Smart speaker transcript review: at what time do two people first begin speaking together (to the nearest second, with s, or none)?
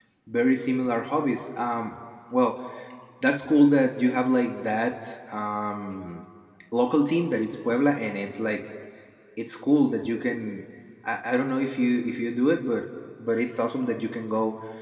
none